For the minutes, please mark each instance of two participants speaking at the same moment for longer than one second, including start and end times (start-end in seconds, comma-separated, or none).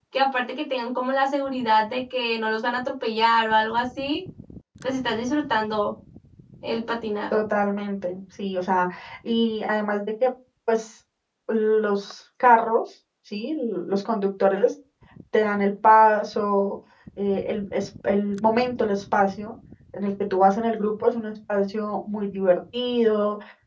none